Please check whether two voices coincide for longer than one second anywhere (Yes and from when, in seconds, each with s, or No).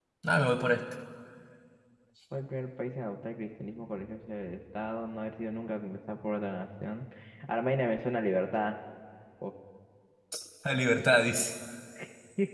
No